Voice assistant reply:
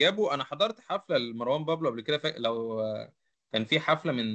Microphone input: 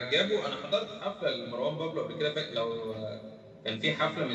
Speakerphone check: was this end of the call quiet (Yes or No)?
Yes